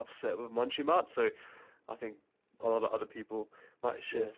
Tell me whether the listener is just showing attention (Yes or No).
No